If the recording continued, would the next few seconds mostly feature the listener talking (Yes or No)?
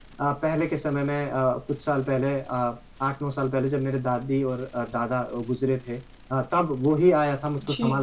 No